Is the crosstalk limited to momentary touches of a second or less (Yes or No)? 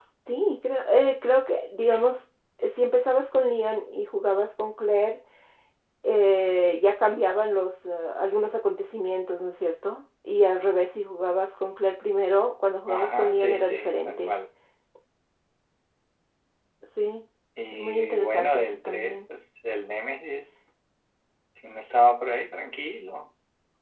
No